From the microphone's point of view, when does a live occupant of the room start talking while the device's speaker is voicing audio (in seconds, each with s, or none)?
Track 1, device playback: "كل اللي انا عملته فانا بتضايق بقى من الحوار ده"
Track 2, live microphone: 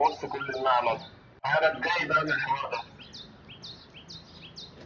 none